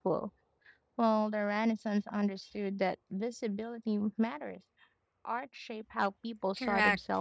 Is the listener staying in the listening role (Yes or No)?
No